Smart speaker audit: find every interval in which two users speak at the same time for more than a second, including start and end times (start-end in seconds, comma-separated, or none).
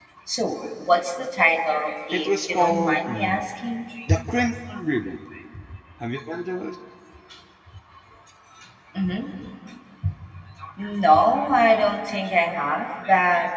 2.1-3.5